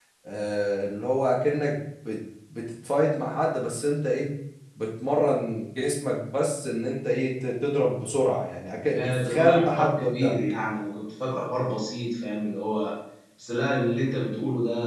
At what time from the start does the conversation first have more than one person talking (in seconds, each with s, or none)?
8.9 s